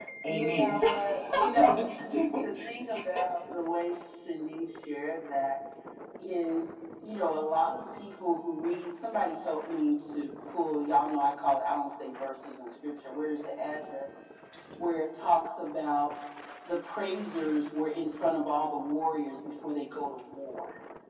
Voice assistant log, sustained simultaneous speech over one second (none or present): present